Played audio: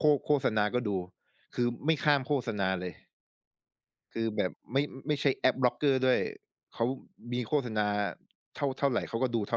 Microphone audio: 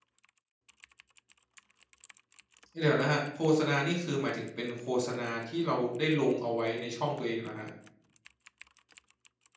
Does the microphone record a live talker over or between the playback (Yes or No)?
Yes